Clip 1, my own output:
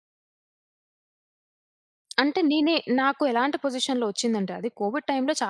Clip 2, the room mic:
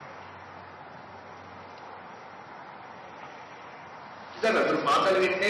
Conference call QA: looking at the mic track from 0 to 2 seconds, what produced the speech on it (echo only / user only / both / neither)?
neither